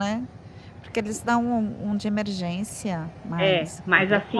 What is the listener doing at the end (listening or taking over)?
taking over